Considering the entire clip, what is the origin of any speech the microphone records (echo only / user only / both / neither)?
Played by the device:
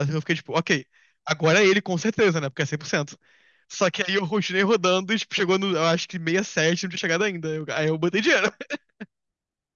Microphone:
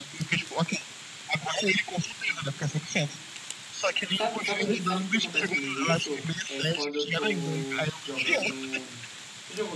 both